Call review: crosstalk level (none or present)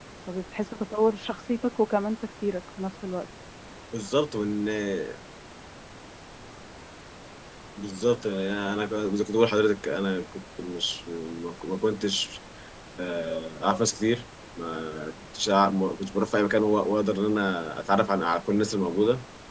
none